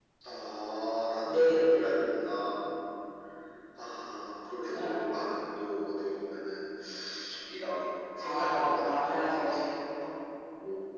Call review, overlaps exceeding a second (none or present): present